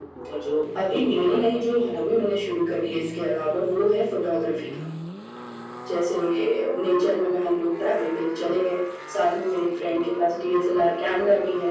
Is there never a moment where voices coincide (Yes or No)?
No